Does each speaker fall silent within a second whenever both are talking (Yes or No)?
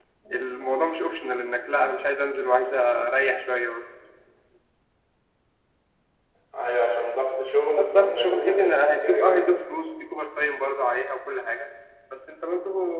No